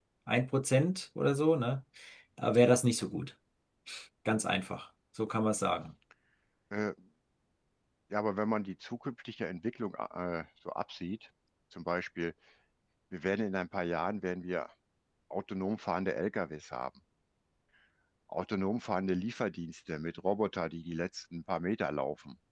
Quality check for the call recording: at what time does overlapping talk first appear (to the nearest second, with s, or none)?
none